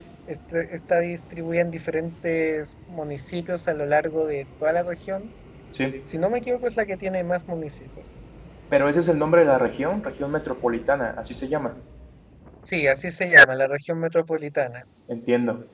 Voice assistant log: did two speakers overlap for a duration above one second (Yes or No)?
No